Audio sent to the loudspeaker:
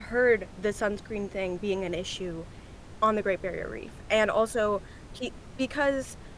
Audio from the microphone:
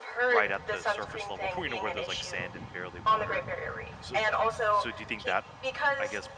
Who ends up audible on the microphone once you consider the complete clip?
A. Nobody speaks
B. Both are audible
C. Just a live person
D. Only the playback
B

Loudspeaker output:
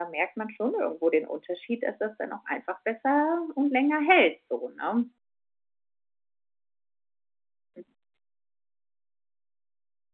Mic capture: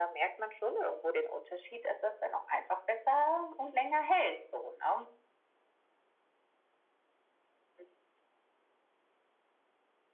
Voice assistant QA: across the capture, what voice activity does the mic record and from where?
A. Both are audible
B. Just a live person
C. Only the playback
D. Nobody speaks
C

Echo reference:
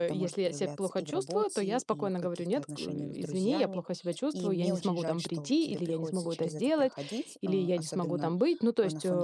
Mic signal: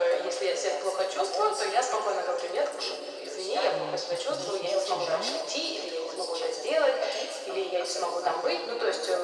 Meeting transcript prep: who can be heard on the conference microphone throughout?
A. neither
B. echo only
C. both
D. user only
C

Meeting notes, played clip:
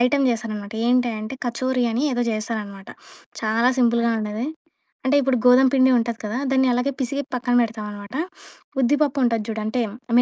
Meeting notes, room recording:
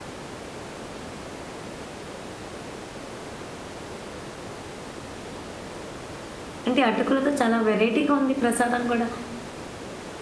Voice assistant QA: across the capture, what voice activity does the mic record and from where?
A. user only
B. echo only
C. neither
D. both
A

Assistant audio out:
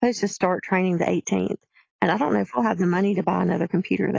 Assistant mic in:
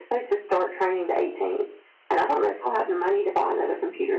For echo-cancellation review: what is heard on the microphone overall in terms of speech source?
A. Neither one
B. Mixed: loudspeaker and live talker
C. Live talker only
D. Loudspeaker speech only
D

